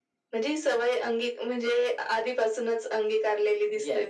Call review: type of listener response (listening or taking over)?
taking over